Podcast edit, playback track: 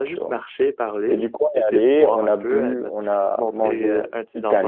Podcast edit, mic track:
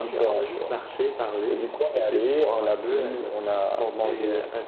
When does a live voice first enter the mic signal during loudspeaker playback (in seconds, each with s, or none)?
none